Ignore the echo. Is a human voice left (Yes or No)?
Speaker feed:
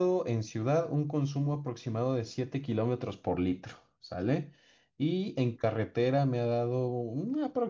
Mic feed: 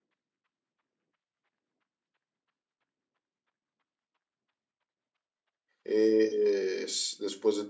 Yes